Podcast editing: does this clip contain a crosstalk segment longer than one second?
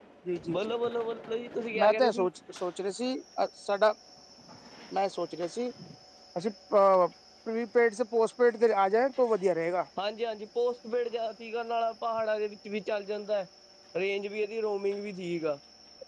No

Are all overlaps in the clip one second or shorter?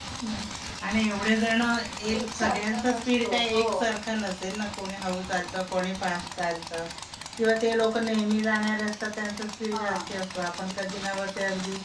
No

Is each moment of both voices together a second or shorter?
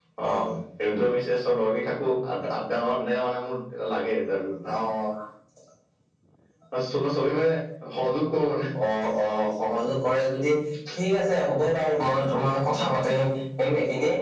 Yes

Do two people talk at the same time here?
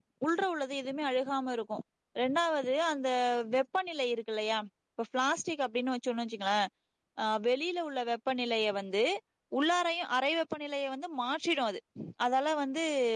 No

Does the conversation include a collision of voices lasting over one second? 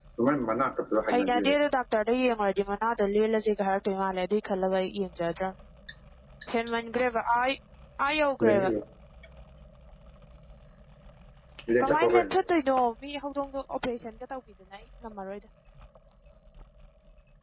No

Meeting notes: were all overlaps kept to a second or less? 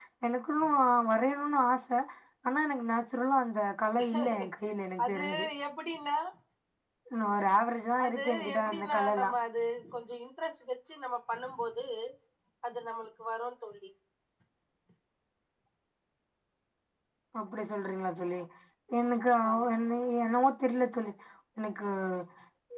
No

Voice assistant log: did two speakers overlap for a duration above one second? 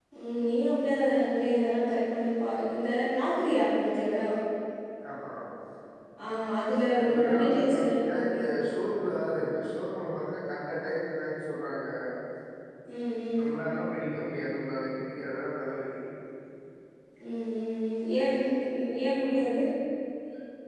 Yes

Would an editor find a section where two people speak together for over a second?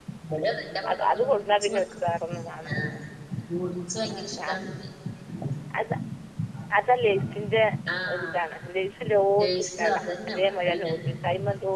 Yes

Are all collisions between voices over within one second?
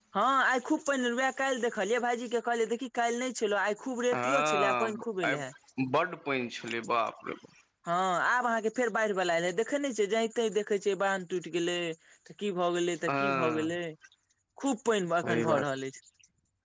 No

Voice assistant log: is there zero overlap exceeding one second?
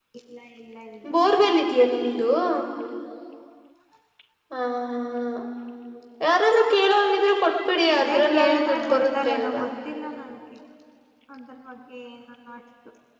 No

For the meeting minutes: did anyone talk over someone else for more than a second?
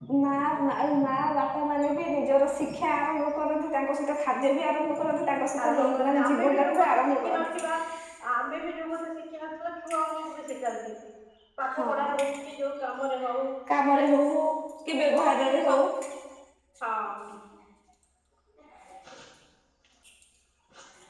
Yes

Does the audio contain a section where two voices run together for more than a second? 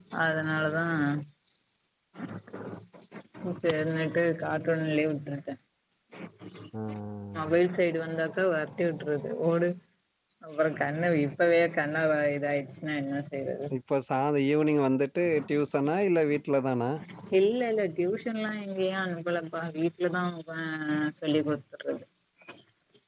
No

